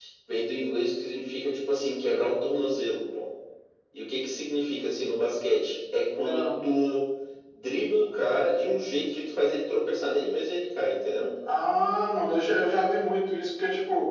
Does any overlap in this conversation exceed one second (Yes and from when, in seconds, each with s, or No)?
No